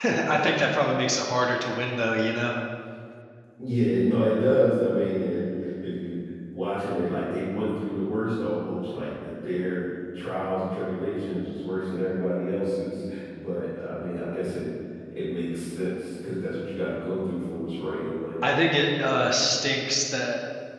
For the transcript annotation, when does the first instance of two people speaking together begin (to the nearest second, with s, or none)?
none